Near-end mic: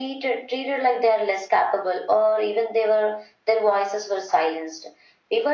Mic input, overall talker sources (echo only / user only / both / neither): echo only